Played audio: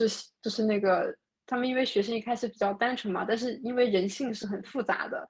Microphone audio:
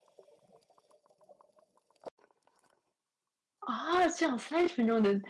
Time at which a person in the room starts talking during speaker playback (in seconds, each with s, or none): 3.6 s